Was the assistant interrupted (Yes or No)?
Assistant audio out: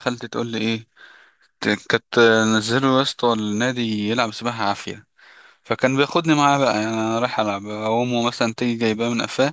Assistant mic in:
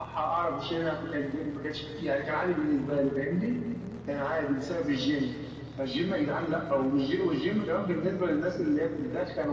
Yes